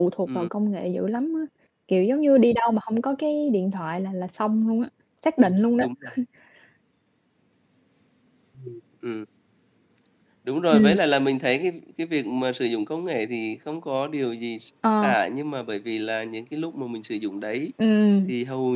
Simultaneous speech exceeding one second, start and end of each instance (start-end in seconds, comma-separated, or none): none